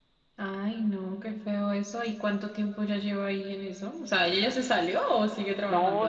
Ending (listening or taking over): taking over